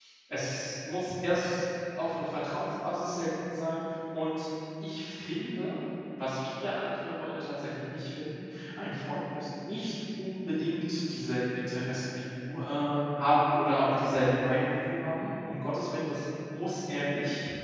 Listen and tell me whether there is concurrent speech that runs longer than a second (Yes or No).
No